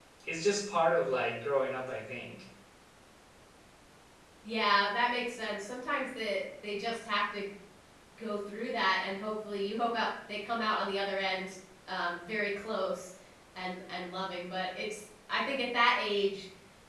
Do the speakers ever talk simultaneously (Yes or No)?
No